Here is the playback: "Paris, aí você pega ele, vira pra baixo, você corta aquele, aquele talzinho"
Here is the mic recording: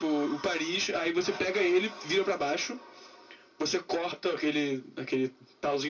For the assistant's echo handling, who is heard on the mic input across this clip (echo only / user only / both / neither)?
echo only